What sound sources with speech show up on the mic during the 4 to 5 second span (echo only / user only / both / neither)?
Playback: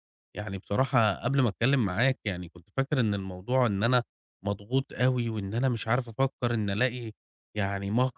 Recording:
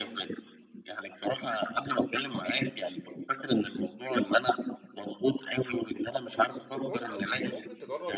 echo only